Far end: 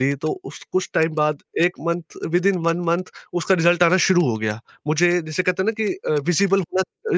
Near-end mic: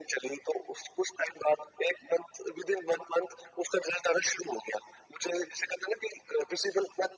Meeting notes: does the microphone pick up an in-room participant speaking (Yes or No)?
No